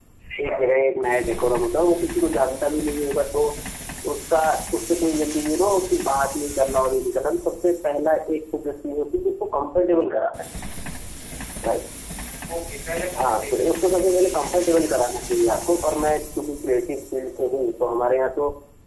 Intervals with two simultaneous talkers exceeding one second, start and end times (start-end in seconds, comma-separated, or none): none